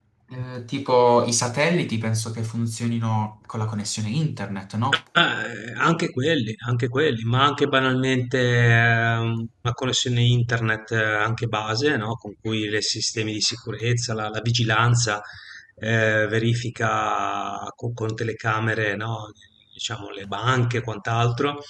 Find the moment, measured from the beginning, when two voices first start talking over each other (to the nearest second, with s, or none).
none